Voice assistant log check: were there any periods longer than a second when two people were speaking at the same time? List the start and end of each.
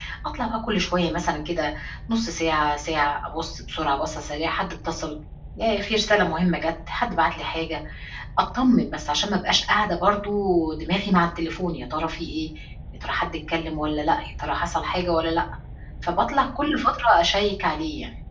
none

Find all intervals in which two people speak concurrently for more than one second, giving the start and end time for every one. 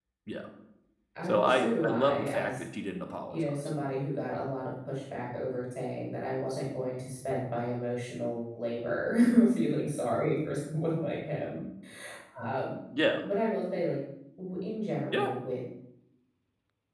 1.3-2.5

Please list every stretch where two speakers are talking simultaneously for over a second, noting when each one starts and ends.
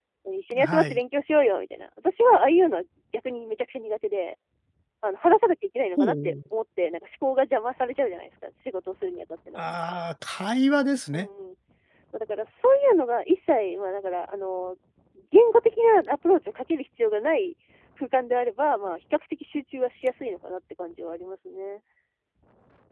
none

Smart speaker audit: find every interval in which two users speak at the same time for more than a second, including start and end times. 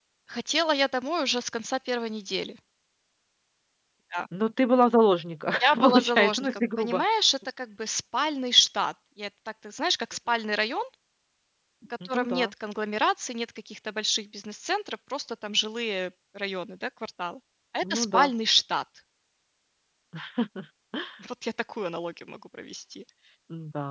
5.6-7.0

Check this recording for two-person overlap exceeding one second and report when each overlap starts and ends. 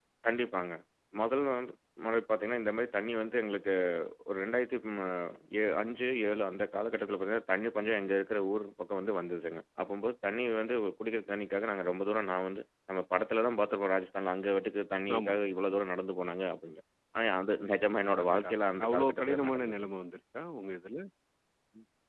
18.2-19.8

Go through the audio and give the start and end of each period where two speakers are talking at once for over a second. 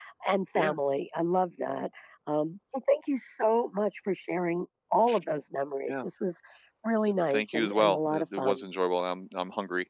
7.3-8.6

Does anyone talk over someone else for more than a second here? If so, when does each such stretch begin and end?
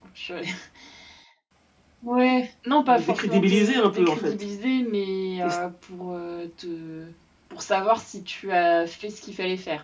2.9-4.3

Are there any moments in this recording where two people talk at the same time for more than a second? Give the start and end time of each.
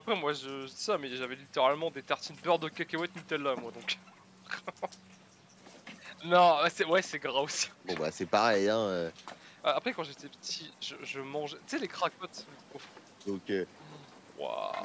none

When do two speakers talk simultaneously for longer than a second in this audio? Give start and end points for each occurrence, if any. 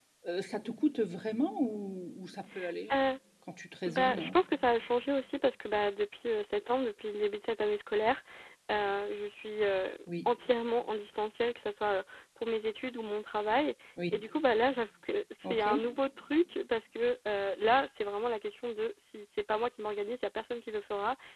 none

